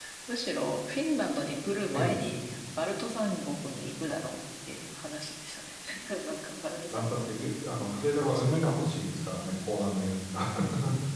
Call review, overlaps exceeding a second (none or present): none